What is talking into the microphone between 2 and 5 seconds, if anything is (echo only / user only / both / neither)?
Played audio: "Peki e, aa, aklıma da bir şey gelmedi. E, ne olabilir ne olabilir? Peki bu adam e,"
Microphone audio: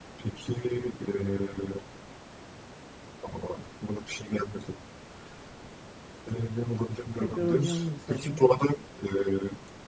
echo only